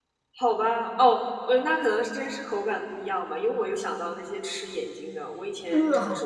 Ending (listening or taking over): listening